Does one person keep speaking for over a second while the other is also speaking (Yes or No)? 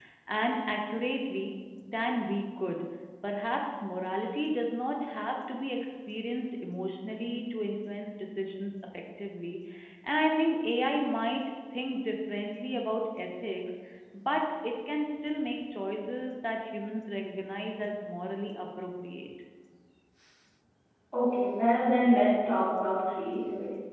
No